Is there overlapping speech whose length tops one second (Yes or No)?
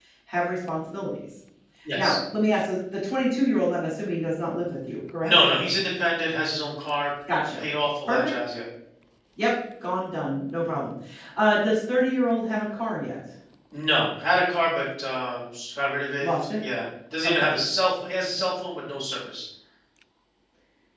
No